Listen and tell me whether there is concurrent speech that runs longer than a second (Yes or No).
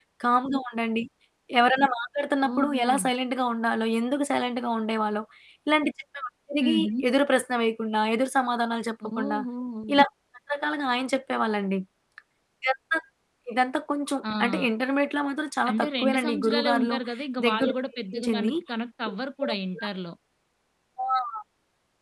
Yes